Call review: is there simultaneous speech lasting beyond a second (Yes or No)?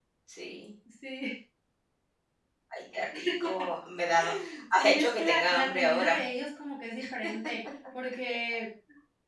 Yes